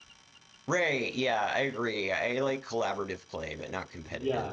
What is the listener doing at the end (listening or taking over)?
taking over